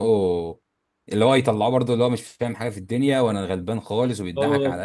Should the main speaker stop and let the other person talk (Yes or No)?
No